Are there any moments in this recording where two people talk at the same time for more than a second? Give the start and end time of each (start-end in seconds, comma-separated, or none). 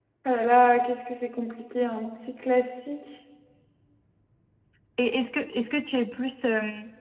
none